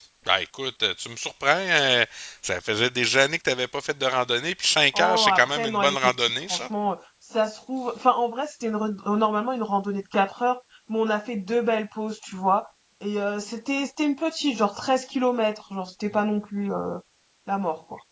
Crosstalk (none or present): present